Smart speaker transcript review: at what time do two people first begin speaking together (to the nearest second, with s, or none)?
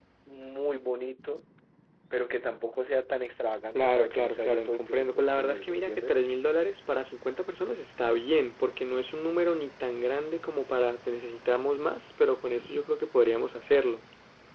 4 s